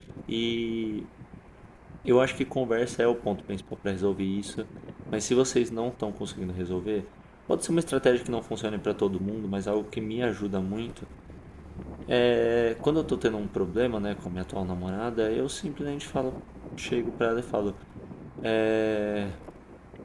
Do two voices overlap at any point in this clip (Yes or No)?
No